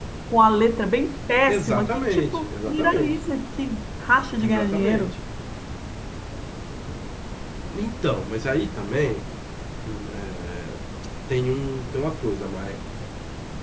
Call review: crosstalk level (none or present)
present